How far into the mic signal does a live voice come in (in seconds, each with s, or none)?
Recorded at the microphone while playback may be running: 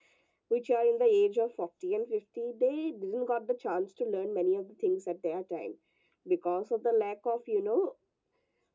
none